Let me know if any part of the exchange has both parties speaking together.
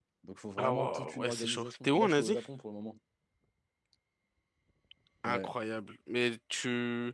Yes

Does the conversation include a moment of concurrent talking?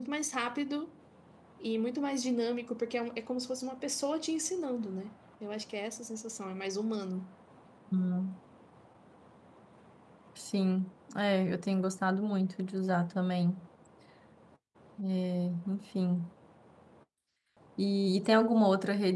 No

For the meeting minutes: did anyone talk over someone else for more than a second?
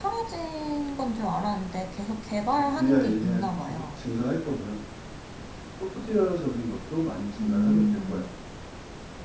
Yes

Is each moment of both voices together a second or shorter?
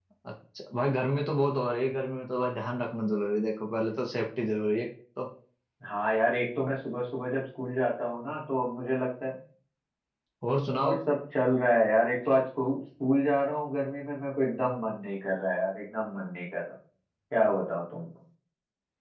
Yes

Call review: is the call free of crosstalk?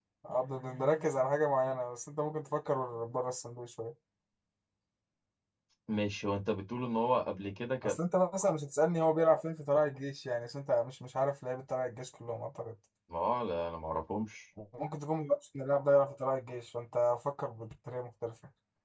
Yes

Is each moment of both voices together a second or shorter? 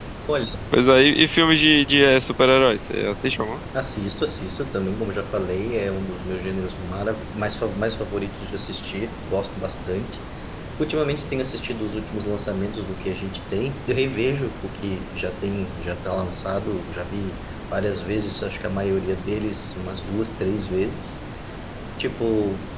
Yes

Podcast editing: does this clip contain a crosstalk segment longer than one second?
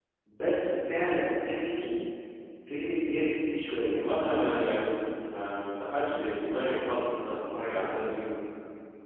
No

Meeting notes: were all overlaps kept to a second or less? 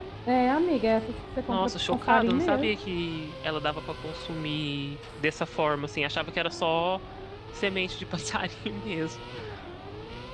No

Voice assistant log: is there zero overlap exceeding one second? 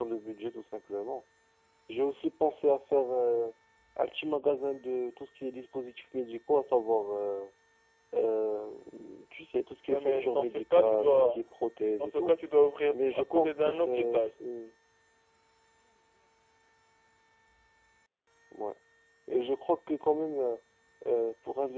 No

